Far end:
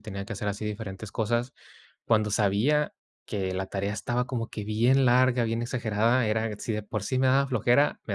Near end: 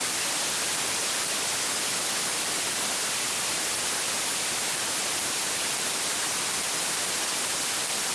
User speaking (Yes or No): No